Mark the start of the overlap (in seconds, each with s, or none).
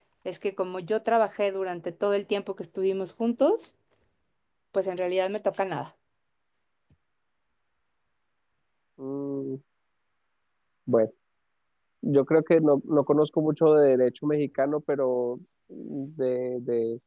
none